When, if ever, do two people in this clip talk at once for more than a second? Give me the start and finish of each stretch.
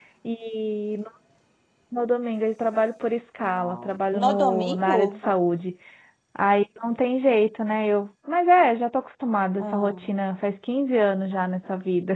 3.5-5.0

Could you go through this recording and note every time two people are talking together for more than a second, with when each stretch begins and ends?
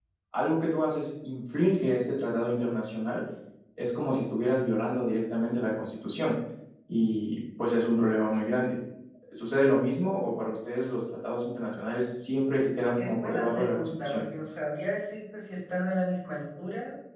13.0-14.2

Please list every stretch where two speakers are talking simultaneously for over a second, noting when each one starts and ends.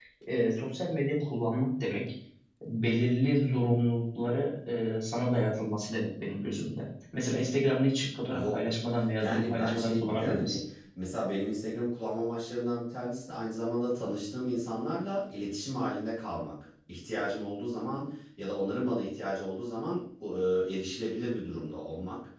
9.2-10.6

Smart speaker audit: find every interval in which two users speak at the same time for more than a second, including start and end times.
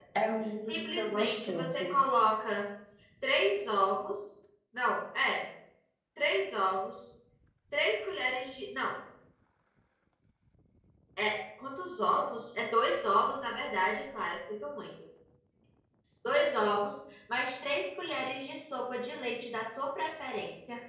0.6-2.0

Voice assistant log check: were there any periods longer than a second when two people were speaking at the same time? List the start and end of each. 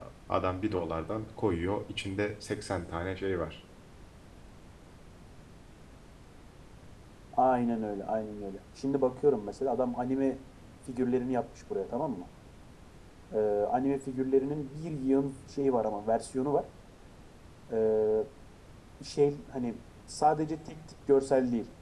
none

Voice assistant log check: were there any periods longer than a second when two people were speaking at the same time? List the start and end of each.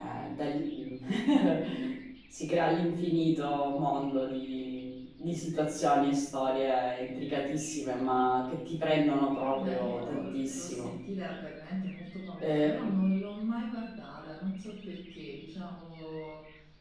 9.4-10.9

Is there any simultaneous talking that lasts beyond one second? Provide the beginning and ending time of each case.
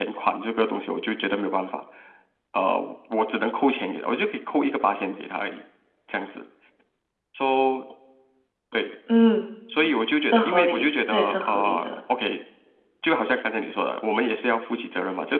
10.3-11.9

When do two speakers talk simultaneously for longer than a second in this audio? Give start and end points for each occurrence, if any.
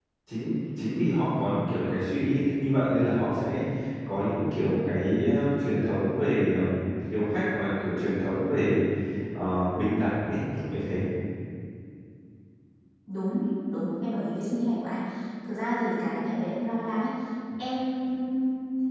none

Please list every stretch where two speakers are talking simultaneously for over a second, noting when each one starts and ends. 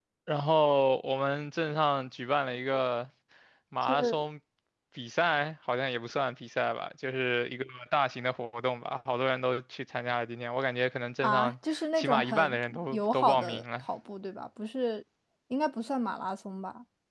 11.2-13.8

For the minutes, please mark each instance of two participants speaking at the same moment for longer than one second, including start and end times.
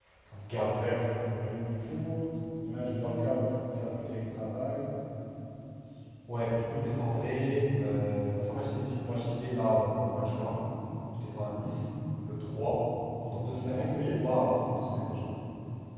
none

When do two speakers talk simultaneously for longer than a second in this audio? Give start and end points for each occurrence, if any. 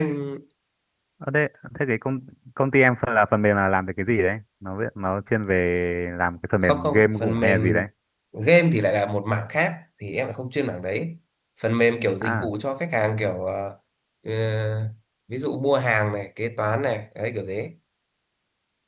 6.6-7.9

